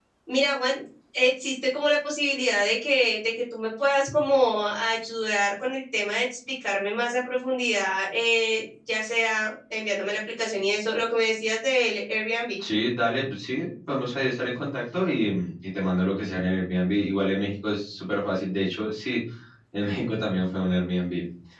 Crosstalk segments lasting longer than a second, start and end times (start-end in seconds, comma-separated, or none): none